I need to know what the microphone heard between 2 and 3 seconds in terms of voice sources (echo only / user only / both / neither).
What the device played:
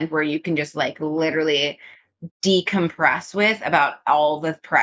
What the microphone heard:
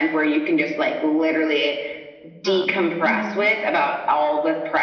both